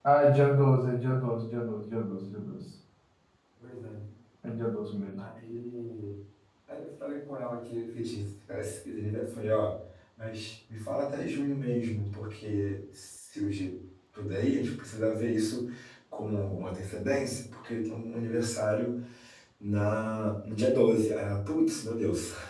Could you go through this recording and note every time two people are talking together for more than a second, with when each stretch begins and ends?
none

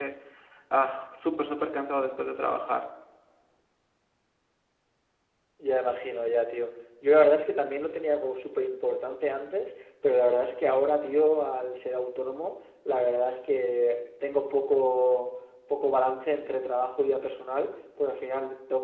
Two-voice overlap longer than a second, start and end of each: none

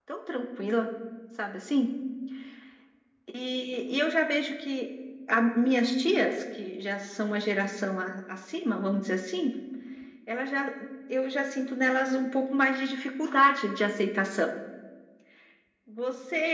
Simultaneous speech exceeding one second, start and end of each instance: none

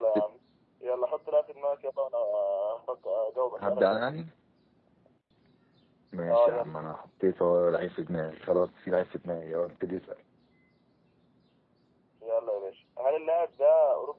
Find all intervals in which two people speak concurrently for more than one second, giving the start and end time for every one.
none

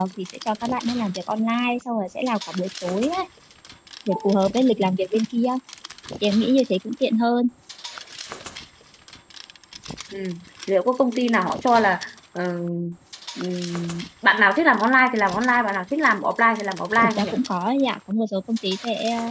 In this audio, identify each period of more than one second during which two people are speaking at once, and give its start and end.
none

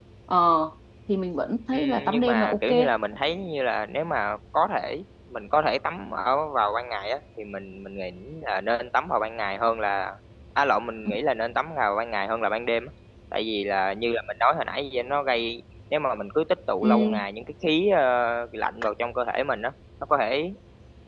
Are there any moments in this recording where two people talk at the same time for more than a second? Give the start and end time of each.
1.7-2.9

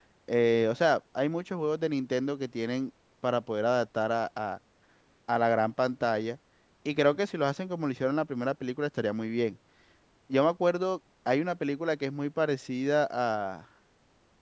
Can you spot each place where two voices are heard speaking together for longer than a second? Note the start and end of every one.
none

